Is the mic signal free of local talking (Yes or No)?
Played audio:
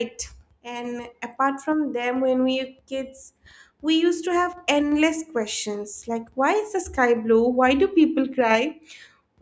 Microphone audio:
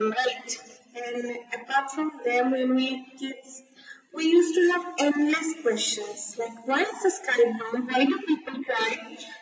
Yes